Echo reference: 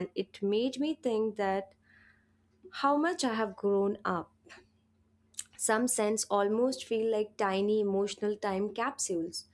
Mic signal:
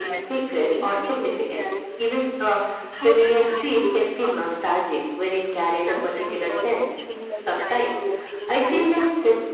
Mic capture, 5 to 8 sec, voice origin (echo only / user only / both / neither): both